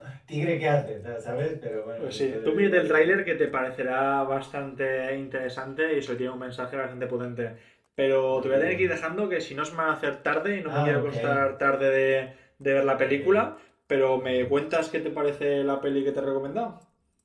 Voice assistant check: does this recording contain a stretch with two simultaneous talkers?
Yes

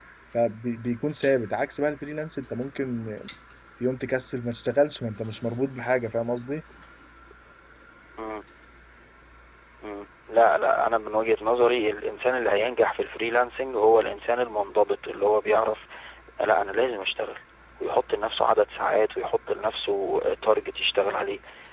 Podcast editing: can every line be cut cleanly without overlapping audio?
Yes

